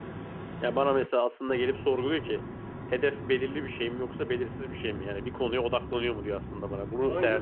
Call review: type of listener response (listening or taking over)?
taking over